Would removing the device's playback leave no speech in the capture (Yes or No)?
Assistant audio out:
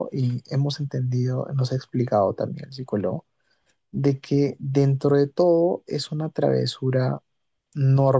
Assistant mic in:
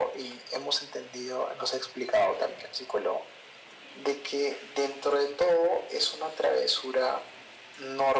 Yes